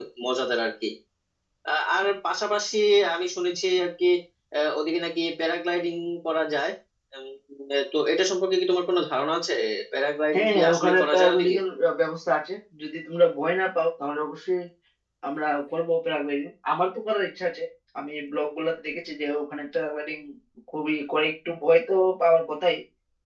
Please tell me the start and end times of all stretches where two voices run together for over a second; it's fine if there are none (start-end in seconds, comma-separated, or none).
10.3-11.5